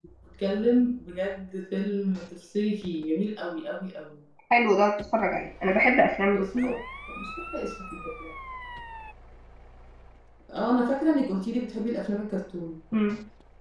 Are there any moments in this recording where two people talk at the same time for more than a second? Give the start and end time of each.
none

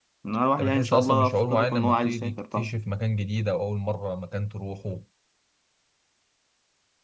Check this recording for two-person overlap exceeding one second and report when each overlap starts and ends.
0.6-2.7

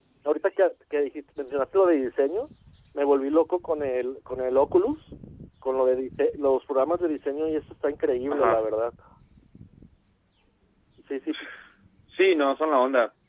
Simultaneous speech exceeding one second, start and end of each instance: none

